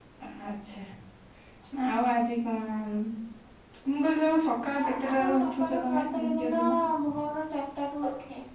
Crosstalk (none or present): present